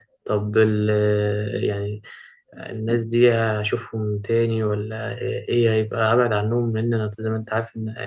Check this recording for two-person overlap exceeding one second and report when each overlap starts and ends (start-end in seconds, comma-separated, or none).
none